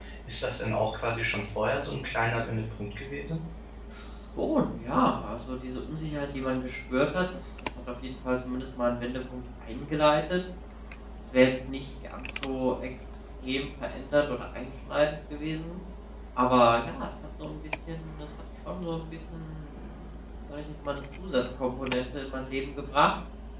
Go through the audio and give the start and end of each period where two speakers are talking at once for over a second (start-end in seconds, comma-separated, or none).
none